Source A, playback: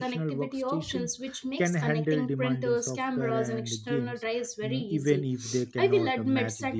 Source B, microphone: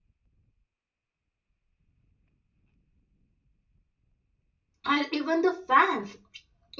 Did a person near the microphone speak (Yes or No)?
Yes